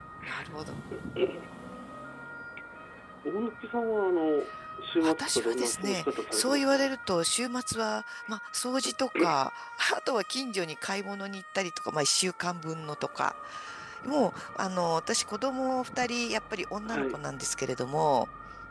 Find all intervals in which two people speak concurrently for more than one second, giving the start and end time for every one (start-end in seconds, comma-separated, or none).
5.0-6.8